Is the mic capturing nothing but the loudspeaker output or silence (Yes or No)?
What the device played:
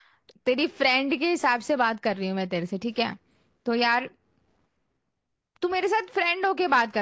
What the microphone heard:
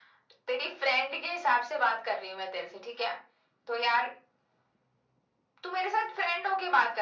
Yes